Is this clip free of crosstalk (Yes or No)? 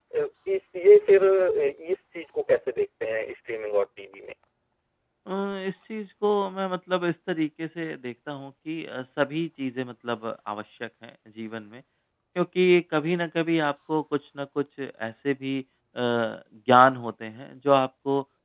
Yes